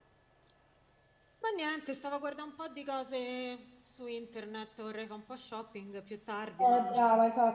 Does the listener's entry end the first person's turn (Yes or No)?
Yes